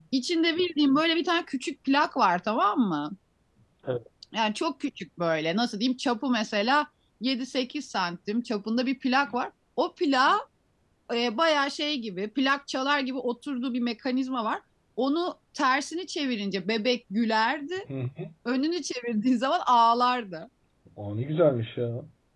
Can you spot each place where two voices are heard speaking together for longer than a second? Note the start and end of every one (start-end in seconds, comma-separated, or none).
none